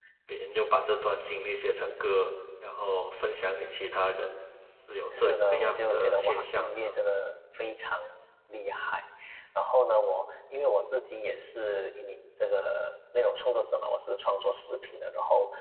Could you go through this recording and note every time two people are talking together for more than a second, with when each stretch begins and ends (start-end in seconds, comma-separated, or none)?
5.1-7.0